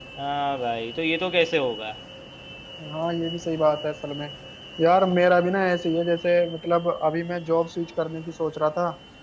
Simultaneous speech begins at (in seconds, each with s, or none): none